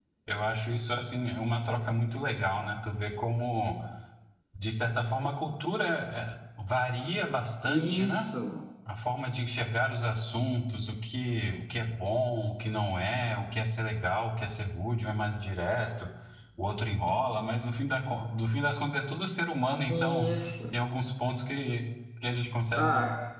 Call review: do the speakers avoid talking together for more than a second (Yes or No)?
Yes